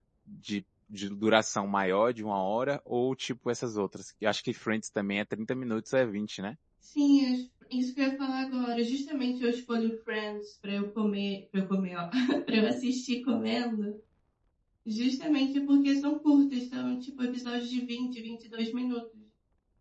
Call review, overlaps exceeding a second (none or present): none